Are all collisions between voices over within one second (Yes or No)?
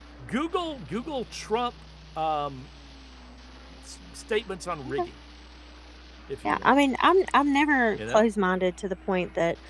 Yes